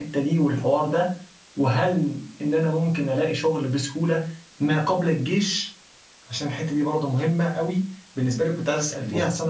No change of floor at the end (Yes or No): Yes